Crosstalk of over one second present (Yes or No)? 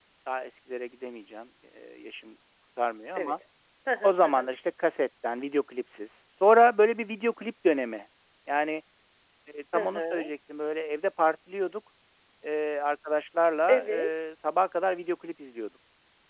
No